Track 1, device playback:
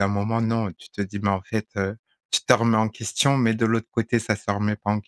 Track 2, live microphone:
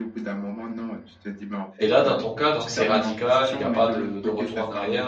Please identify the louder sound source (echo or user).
user